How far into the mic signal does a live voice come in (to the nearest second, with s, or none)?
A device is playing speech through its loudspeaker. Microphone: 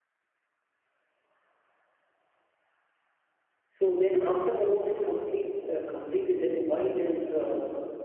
4 s